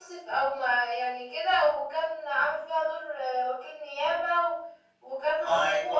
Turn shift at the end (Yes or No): No